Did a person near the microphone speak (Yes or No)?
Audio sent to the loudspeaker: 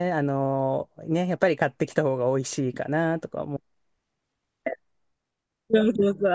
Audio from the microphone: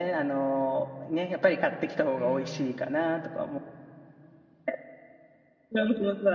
Yes